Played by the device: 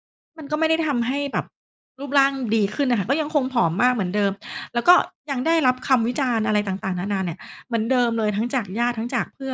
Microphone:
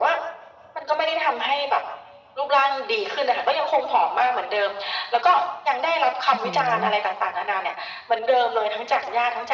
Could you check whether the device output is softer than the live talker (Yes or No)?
No